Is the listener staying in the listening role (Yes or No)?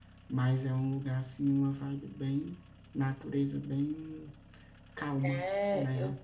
No